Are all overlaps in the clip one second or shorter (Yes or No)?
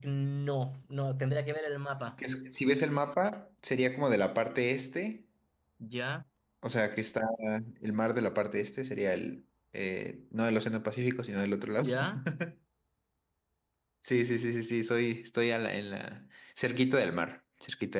Yes